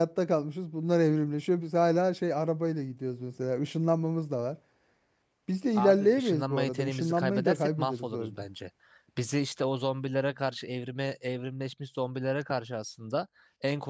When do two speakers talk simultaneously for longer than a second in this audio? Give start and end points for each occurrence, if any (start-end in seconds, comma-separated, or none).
5.7-8.4